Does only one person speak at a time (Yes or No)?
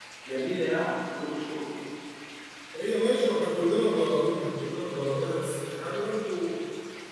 Yes